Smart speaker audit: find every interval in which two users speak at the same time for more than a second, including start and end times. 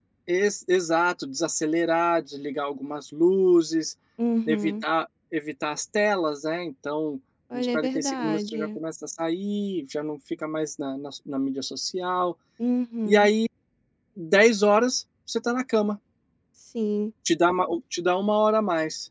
7.5-8.8

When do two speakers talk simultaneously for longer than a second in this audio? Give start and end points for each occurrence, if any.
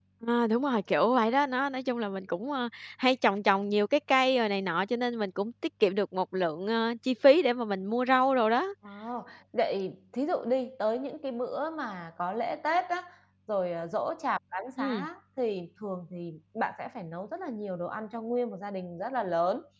none

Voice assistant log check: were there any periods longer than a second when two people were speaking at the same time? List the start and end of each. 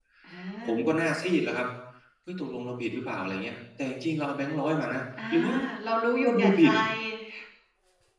none

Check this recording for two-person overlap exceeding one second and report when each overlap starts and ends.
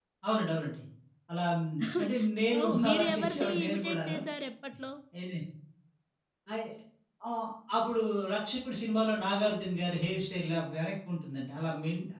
2.6-4.2

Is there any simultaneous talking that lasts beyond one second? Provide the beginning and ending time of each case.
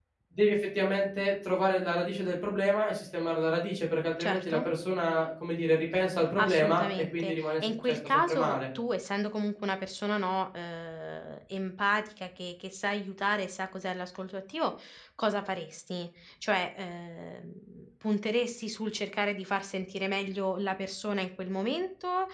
6.4-8.6

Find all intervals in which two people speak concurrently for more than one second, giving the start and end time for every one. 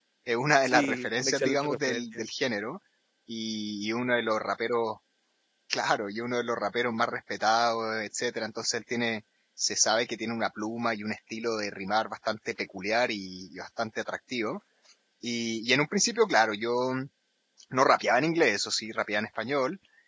0.6-2.2

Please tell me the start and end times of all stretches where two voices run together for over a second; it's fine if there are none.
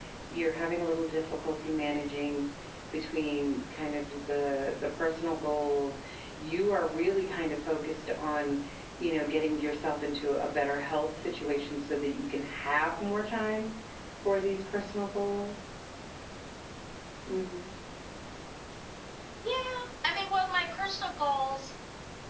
none

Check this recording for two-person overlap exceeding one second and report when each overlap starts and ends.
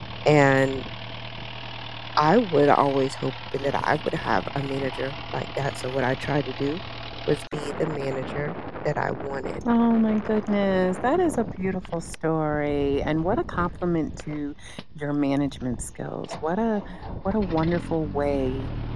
none

